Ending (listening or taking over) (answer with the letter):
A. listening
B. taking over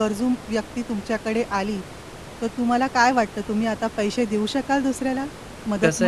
B